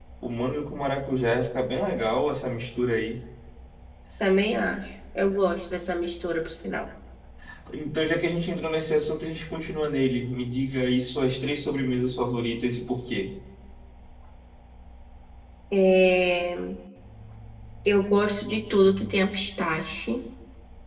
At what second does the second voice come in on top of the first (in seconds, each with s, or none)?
none